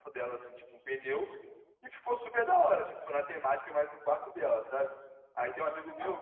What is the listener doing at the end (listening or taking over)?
listening